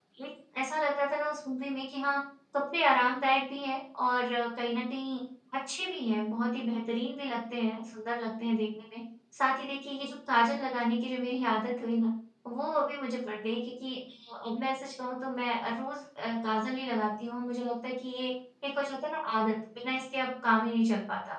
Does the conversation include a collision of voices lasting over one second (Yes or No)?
No